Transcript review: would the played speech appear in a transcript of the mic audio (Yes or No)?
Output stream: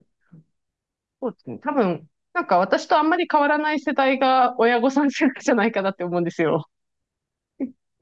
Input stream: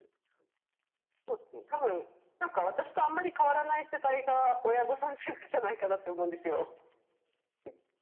Yes